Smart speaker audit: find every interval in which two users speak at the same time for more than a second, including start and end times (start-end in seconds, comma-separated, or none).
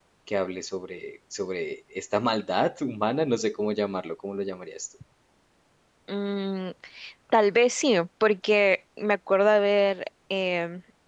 none